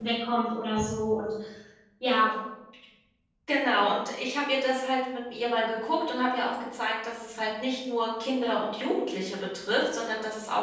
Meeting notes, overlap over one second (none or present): none